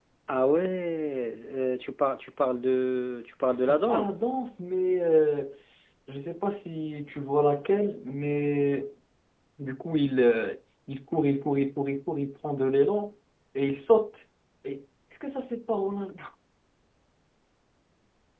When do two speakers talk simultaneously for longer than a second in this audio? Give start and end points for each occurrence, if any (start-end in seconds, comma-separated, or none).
none